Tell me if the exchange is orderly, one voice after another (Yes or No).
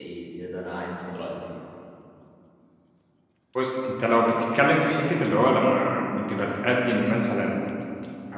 Yes